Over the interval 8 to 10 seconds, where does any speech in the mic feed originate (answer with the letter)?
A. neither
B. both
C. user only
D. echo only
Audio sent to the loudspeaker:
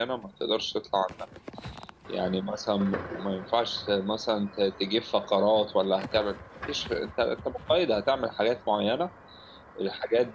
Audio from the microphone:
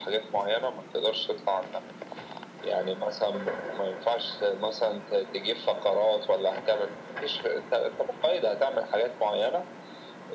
D